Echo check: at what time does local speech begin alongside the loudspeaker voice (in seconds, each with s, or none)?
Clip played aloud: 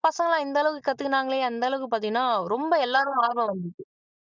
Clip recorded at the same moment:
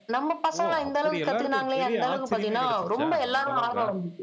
0.6 s